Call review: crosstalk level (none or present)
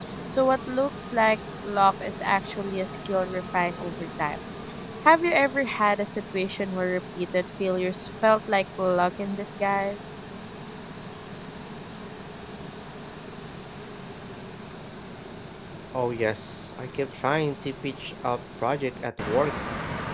none